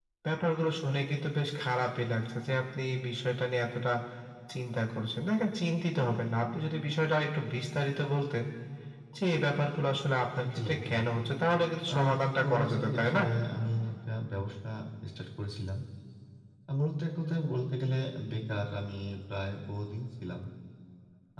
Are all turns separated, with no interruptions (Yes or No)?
No